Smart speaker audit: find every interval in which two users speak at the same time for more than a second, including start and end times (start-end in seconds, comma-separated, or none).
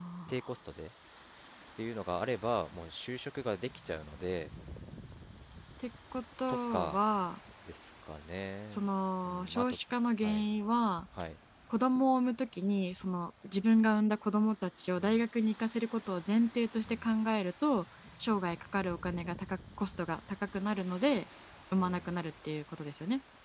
none